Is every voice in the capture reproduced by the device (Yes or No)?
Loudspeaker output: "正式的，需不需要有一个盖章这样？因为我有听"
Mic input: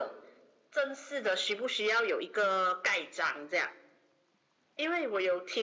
Yes